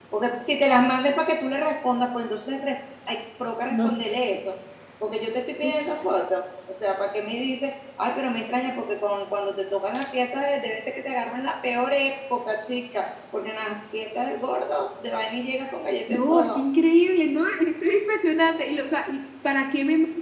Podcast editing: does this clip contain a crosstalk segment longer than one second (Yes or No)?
No